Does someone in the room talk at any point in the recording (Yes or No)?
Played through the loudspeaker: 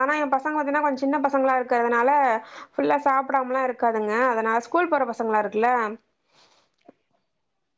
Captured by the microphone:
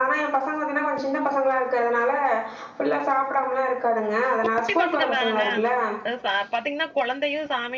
Yes